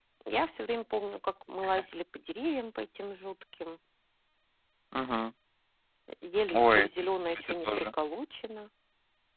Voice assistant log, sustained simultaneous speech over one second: present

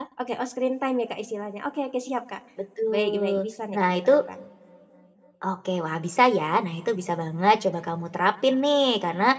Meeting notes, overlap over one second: present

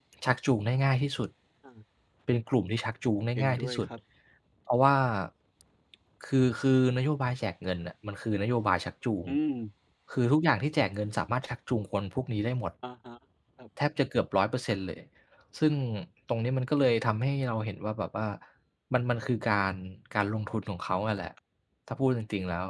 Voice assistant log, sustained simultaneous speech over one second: none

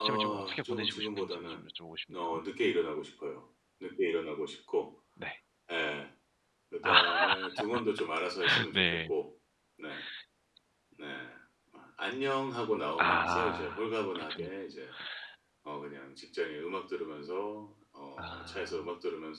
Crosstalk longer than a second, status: present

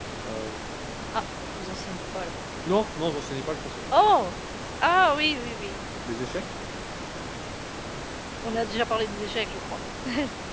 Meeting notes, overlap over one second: none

